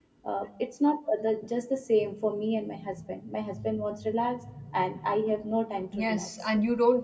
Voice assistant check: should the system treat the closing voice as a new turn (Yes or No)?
Yes